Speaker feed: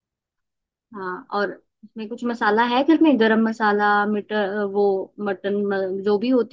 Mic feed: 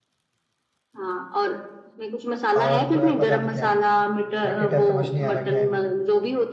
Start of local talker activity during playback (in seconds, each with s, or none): 2.6 s